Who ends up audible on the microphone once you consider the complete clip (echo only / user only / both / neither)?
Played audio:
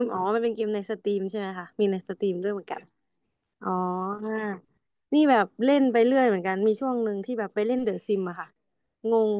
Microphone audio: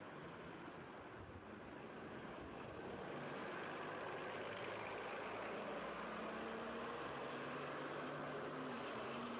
neither